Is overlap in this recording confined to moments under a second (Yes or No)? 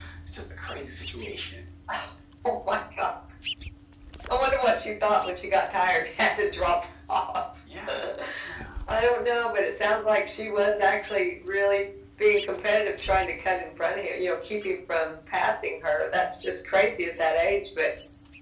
Yes